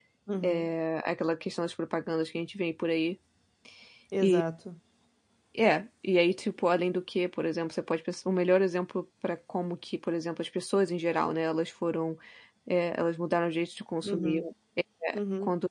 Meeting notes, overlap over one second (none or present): none